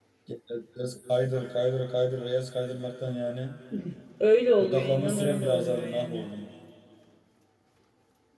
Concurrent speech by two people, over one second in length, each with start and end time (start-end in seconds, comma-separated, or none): 4.6-6.2